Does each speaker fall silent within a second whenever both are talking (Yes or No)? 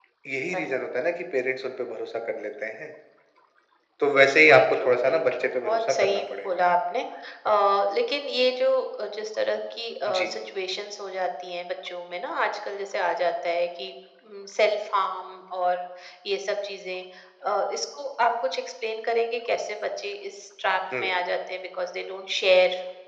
No